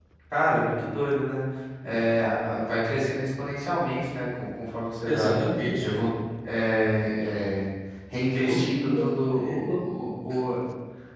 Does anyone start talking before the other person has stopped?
Yes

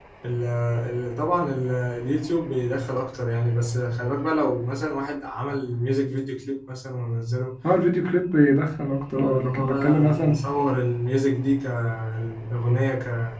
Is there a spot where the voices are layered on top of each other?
Yes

